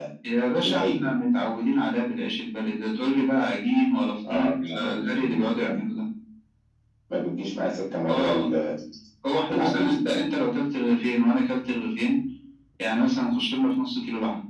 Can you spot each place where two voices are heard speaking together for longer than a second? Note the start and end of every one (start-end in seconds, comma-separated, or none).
4.3-5.7